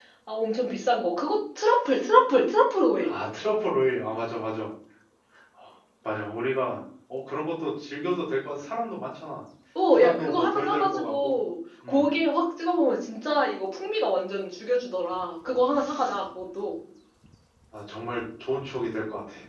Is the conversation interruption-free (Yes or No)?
No